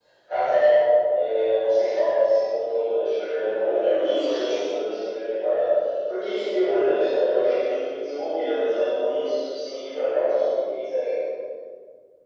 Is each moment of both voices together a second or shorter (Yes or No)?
No